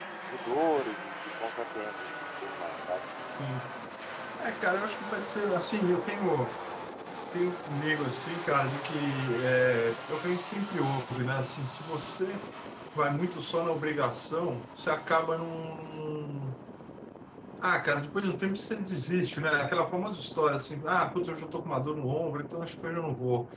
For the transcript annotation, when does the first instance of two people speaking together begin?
none

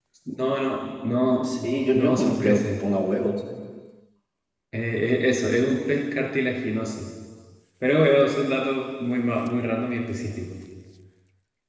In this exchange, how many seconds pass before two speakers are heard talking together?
1.4 s

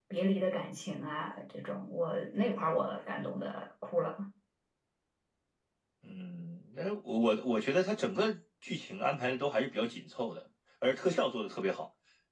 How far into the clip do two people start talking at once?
none

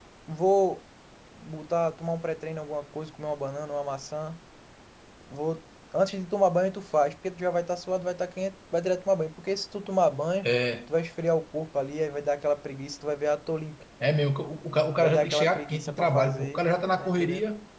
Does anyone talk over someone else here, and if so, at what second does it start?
15.0 s

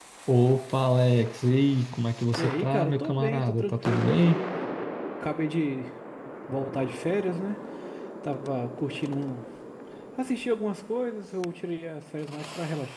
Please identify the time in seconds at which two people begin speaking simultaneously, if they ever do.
2.4 s

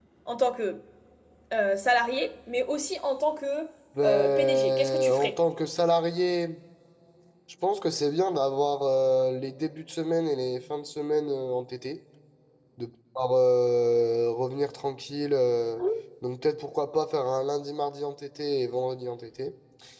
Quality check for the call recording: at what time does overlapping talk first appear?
4.0 s

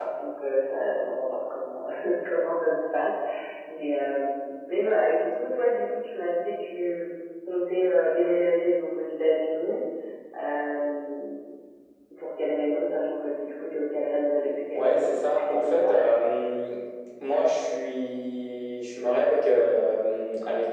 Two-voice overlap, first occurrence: 14.7 s

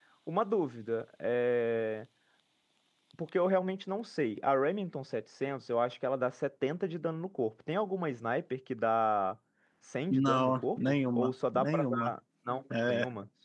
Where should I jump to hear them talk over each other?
10.1 s

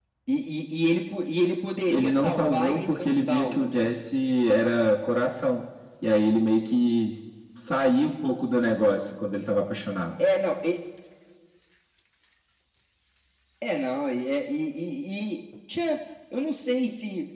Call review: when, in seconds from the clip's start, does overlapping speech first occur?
1.9 s

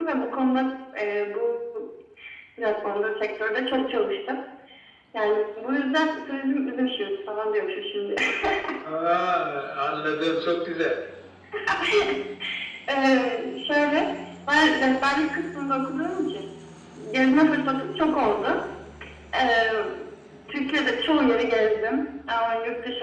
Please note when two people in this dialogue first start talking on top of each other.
none

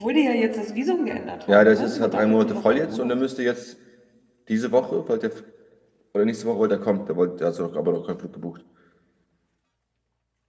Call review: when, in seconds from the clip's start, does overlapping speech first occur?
1.5 s

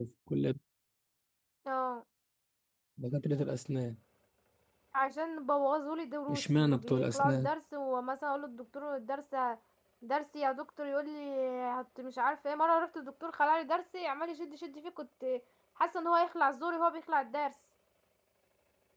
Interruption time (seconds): 6.3 s

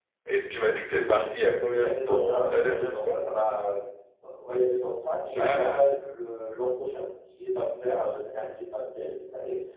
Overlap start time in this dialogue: 1.8 s

